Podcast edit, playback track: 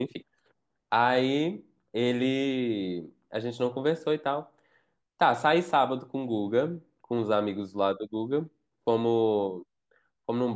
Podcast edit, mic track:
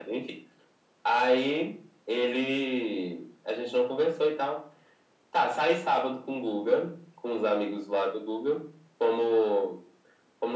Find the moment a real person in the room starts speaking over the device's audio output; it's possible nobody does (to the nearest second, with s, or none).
none